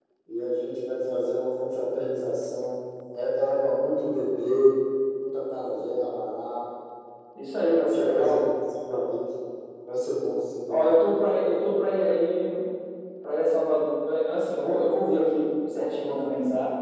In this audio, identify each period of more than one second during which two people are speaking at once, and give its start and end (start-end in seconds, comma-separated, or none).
none